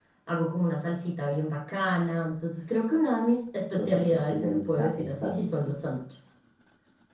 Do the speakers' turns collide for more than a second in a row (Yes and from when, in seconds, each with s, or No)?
Yes, from 3.8 s